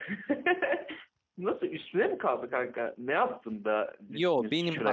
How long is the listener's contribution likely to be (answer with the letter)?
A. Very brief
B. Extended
B